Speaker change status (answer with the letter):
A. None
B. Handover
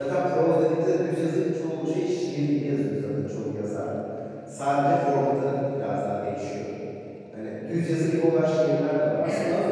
A